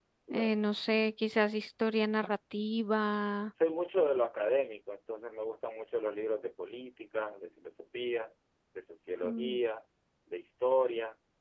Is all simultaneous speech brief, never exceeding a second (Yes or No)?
Yes